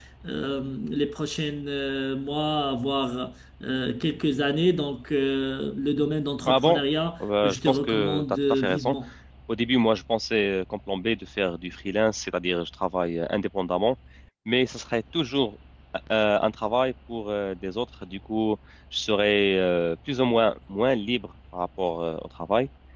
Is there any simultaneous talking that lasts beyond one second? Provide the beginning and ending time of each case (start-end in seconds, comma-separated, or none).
7.2-8.9